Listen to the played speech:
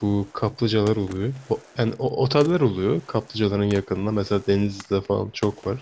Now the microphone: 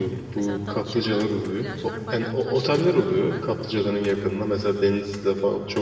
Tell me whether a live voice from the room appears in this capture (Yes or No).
Yes